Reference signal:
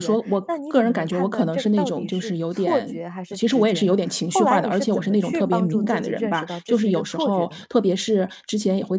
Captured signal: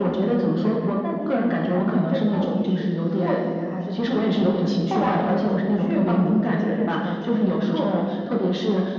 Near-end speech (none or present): none